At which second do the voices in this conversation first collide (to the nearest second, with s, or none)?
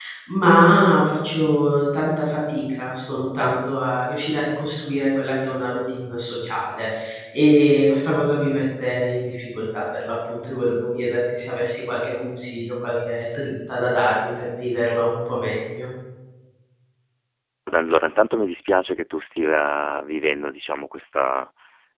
none